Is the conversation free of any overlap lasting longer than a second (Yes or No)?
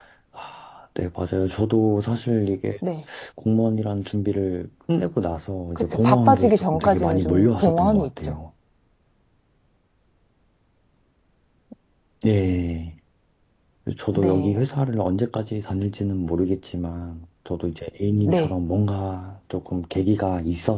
No